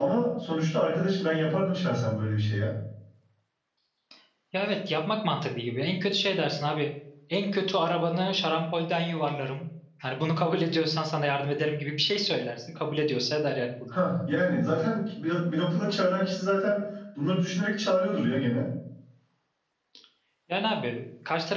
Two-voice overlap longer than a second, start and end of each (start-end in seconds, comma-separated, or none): none